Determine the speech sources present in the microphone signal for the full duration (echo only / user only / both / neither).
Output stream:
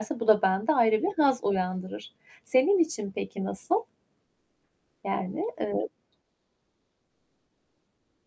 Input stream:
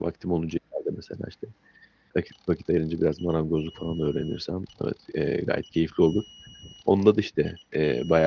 user only